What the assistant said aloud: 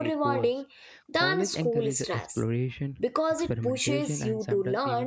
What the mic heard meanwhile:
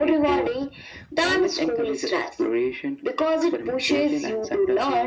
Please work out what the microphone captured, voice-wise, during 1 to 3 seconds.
echo only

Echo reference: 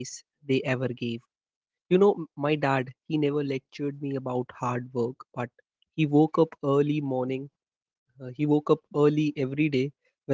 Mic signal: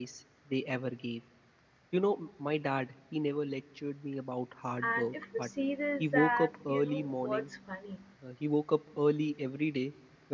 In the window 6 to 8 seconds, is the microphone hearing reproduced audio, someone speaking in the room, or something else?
both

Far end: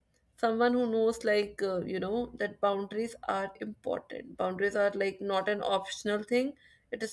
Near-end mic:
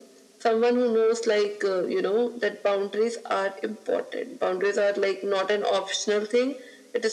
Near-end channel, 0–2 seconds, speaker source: echo only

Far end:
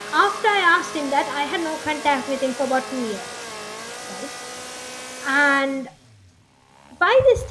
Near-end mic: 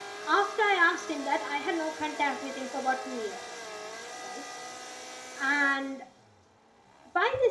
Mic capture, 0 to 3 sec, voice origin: echo only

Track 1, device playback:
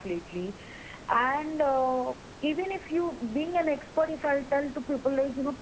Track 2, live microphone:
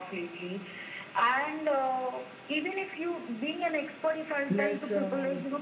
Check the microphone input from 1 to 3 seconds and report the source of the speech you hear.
echo only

